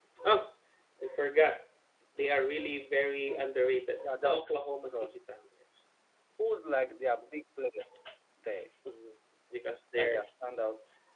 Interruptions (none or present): present